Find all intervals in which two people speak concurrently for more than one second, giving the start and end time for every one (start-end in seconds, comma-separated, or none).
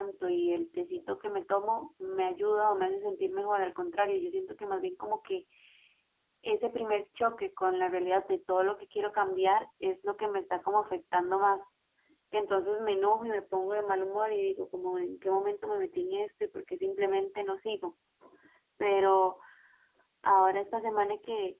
none